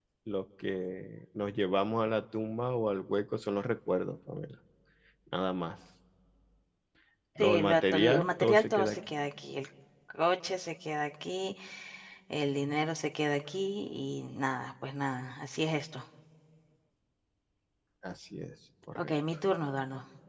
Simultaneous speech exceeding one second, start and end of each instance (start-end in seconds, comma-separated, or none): 7.4-9.0